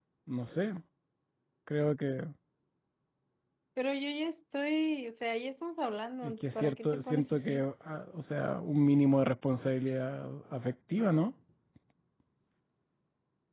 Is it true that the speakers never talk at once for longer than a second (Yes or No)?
No